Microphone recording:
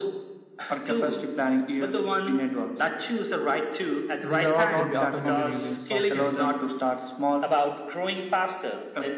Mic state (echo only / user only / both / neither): both